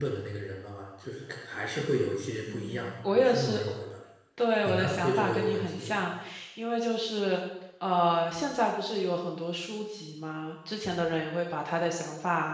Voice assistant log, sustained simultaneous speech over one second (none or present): present